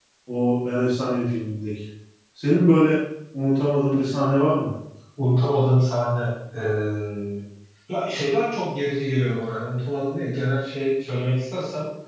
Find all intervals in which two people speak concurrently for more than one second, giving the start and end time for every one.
none

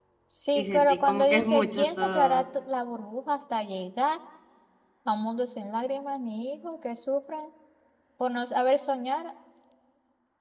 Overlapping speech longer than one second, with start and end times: 0.6-2.5

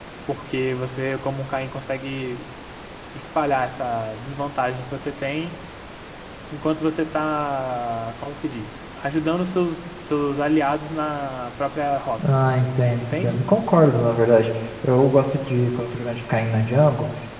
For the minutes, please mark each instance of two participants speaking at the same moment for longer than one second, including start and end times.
12.2-13.4

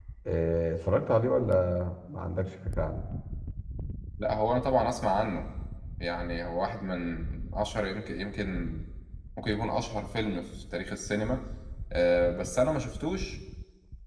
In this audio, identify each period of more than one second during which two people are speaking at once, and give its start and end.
none

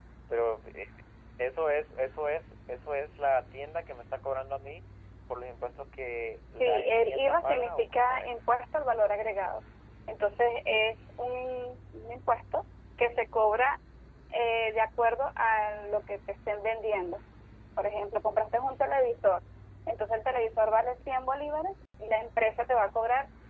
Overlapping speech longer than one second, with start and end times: 6.6-8.3

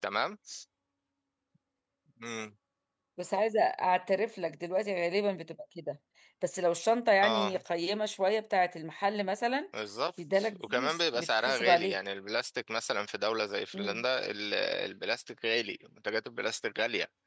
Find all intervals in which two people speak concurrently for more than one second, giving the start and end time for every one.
10.3-12.0

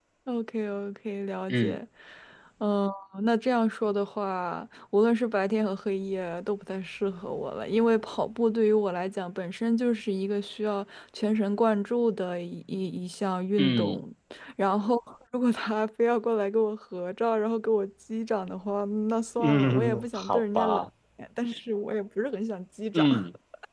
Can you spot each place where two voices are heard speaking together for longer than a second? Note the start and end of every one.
19.4-20.9

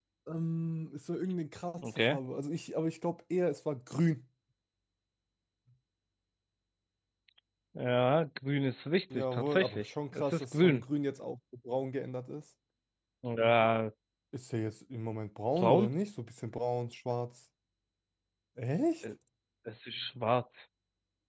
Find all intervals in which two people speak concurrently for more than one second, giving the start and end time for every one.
9.1-10.8

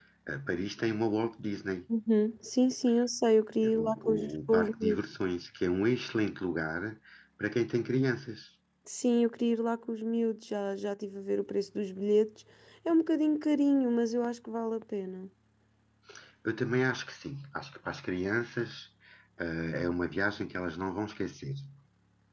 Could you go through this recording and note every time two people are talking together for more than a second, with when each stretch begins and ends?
3.6-5.0

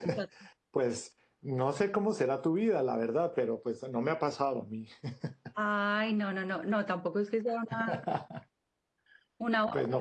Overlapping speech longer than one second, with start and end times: none

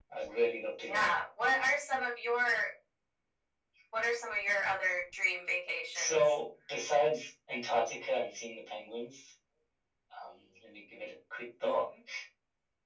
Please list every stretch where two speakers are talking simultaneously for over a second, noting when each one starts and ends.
none

